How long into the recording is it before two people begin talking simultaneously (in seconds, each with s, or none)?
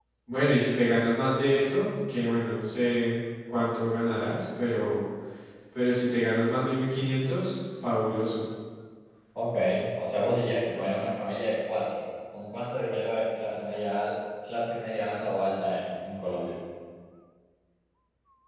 none